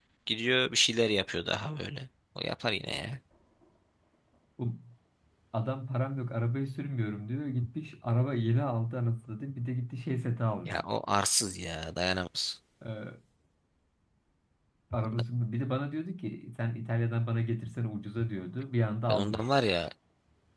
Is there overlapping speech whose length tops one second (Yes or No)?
No